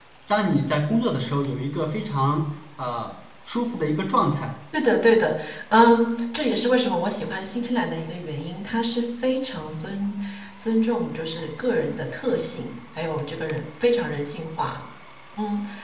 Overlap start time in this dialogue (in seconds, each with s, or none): none